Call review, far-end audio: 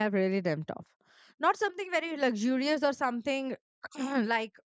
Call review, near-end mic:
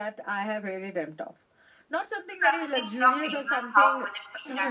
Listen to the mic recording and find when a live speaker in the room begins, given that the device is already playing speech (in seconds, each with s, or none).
2.4 s